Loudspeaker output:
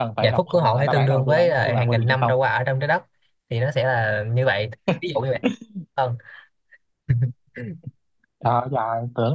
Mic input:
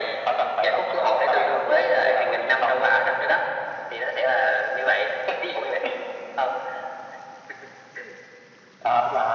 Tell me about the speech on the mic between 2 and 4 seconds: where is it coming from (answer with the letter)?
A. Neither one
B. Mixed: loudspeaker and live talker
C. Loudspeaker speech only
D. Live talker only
C